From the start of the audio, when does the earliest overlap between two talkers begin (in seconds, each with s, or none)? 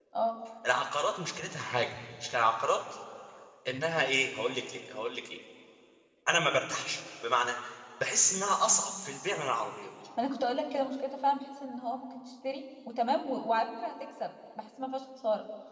none